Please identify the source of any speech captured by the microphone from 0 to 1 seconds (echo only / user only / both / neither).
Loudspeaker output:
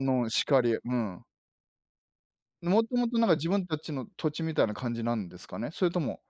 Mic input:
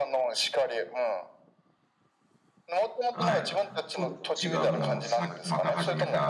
echo only